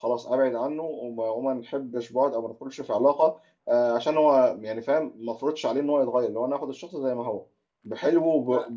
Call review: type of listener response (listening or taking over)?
listening